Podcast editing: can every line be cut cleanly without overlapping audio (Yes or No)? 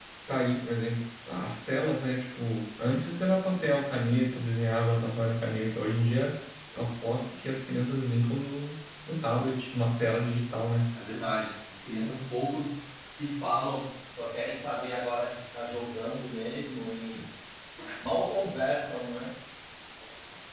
Yes